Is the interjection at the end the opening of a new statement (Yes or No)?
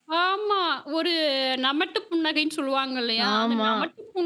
No